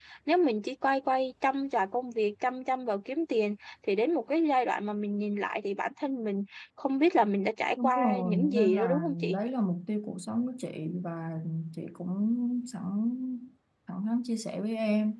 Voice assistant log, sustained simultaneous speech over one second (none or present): present